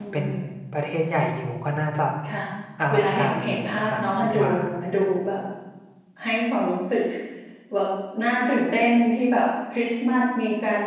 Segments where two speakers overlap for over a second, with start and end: 2.9-4.4

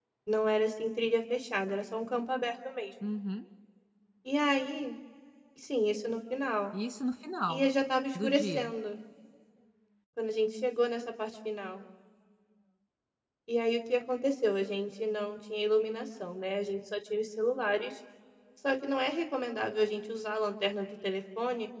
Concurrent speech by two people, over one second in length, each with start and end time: none

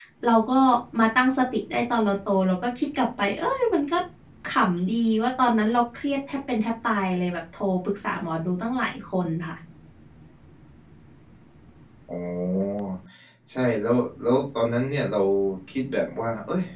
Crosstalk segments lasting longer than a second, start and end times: none

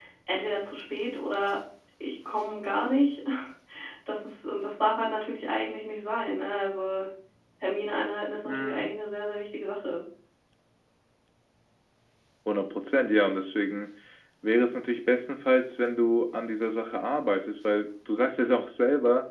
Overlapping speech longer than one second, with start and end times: none

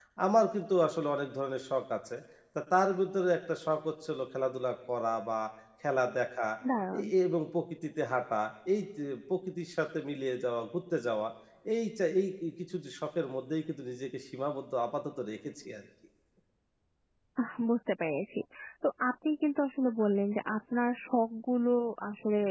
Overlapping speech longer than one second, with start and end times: none

